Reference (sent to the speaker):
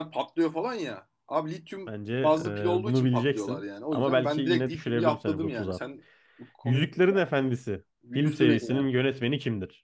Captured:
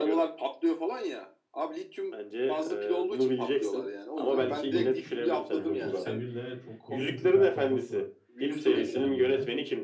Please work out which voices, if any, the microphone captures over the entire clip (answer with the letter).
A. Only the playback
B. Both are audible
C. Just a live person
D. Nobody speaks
B